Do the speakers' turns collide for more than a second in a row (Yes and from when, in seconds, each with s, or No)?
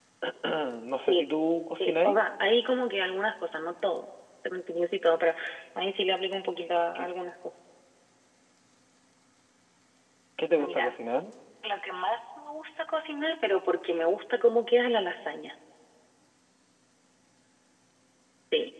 No